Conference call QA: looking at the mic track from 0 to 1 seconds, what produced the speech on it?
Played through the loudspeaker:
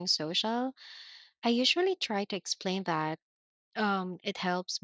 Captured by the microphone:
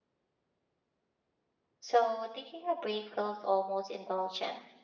neither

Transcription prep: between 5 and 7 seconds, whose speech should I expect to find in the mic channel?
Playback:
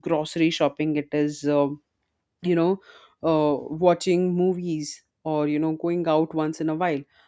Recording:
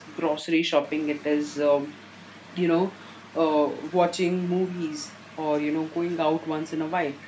echo only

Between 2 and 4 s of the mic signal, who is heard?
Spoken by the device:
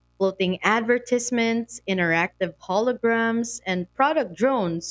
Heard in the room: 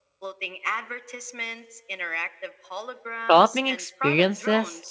both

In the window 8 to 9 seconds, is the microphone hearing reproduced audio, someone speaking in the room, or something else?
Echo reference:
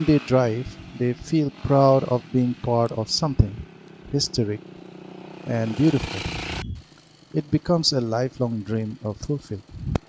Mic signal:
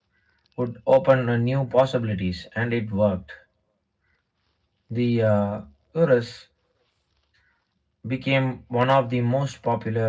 user only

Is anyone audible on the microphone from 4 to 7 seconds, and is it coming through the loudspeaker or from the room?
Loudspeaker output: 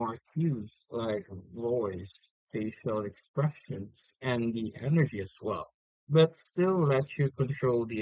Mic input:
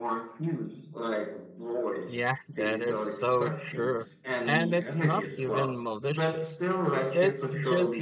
both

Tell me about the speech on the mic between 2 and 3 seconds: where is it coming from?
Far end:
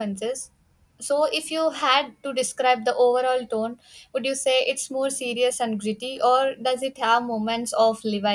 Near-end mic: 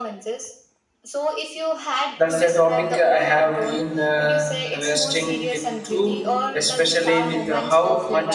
both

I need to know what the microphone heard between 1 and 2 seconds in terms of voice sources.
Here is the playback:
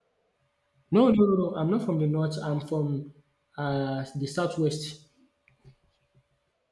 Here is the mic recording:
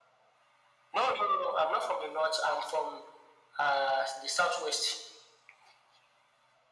echo only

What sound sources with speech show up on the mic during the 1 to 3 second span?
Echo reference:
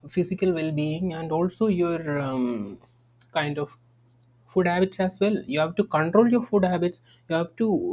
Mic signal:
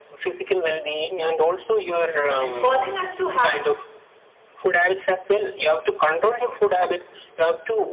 both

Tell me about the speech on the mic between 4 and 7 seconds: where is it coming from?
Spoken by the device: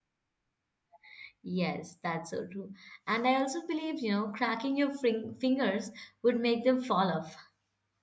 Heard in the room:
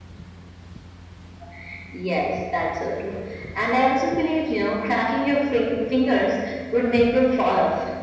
echo only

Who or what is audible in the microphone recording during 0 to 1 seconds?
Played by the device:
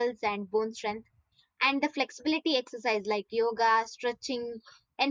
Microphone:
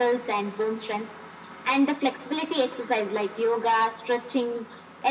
echo only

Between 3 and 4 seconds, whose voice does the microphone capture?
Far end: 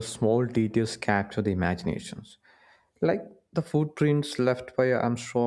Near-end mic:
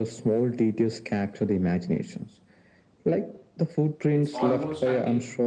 echo only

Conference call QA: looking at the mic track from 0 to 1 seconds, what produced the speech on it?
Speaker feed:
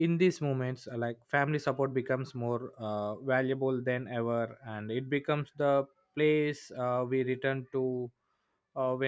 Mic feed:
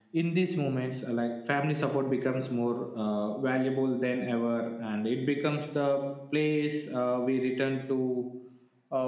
echo only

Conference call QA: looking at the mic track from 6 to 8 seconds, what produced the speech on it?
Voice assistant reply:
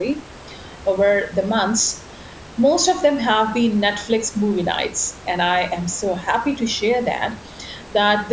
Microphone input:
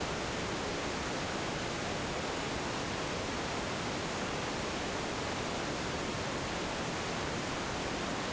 neither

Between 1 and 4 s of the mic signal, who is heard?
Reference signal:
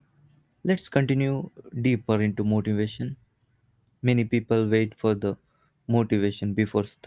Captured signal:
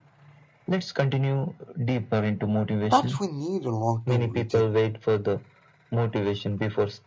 both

